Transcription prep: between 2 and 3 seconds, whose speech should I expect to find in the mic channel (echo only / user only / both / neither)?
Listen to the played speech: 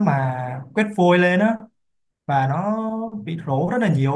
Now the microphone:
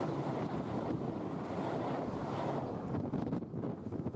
neither